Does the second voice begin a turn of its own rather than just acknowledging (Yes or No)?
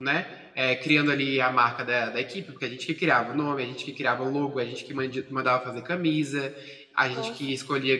No